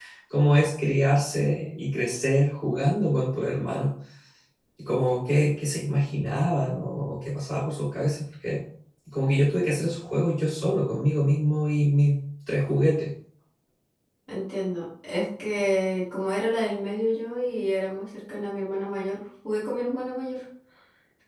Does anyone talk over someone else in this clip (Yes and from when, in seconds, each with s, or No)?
No